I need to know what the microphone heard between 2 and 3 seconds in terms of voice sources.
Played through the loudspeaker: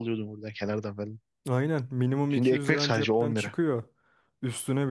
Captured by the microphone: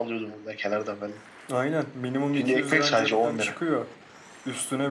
echo only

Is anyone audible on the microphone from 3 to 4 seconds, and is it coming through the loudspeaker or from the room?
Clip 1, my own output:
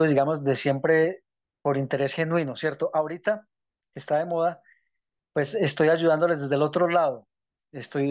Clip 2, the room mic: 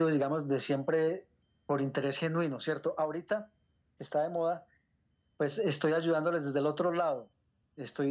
echo only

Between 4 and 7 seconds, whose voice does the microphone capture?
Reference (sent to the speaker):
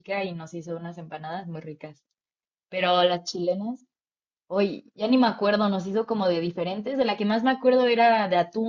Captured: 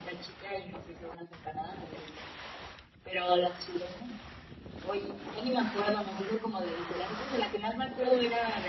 echo only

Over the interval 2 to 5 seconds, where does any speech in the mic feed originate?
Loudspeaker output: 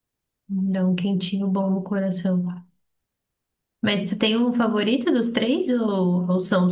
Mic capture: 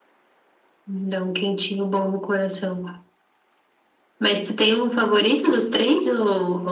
echo only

